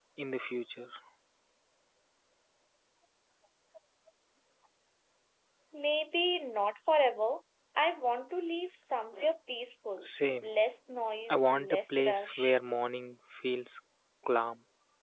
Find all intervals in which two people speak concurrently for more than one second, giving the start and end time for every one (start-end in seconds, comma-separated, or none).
11.3-12.6